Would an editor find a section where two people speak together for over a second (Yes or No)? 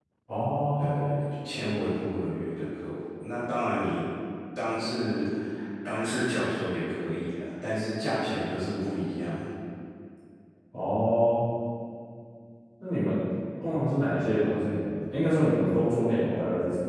No